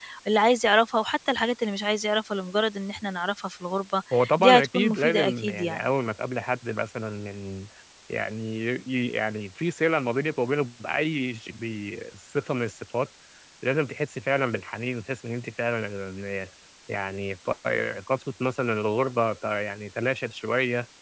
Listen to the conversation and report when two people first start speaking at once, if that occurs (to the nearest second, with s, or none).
4 s